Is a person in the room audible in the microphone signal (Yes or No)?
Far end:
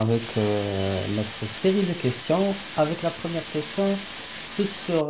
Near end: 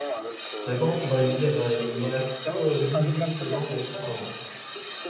Yes